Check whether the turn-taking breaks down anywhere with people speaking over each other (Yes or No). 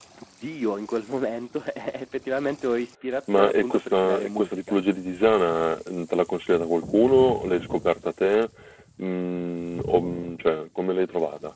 Yes